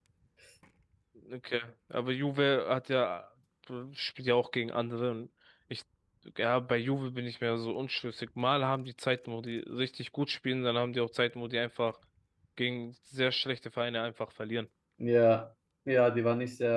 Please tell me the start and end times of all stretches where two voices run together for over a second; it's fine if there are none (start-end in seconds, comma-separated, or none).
none